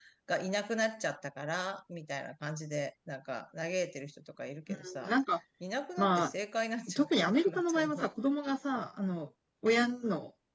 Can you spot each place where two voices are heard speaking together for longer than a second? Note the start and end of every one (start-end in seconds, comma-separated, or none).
6.9-8.1